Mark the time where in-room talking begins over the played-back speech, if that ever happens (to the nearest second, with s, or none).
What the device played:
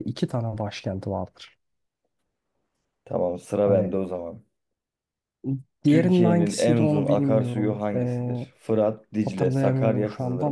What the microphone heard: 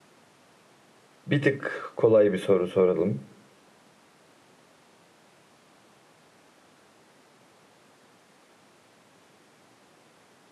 1 s